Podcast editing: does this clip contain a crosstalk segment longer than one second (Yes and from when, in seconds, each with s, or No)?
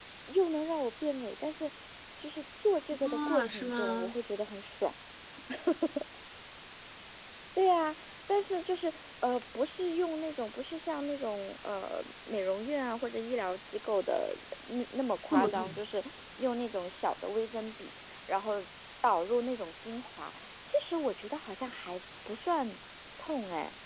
Yes, from 2.9 s